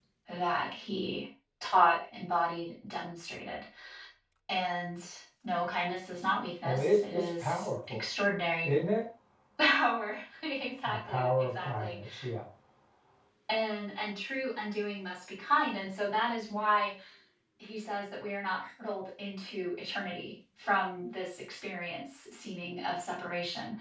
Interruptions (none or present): present